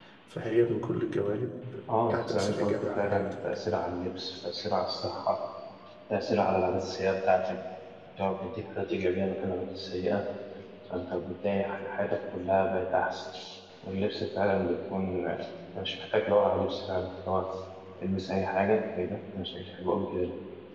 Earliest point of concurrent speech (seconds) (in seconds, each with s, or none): 2.1 s